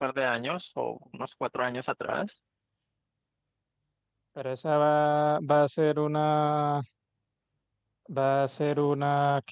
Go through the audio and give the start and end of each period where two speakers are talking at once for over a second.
none

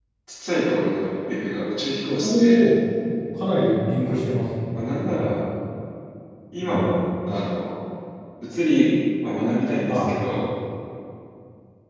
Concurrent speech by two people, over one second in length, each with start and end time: none

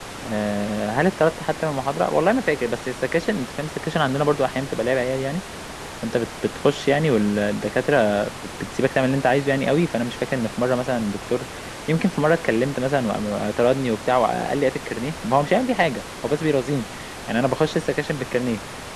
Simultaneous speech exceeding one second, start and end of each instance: none

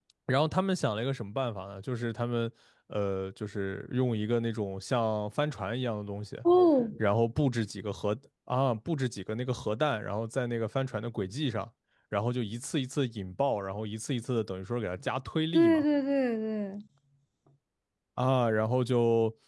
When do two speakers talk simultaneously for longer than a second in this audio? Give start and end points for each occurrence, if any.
none

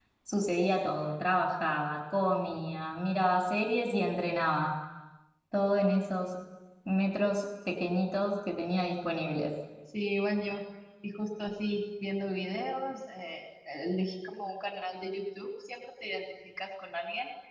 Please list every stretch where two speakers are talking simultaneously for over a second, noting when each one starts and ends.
none

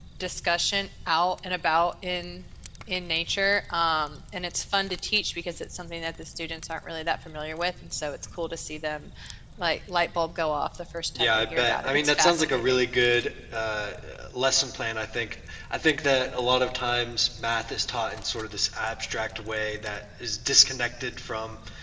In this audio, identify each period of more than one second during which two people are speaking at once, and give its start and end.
11.2-12.6

